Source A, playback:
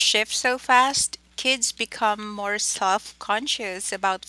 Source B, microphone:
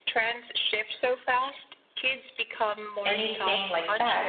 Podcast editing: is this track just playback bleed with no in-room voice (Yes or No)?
No